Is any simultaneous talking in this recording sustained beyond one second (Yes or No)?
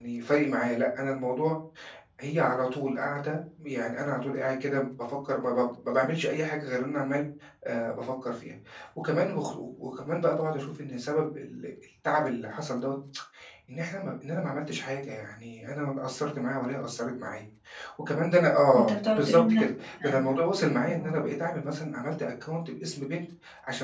Yes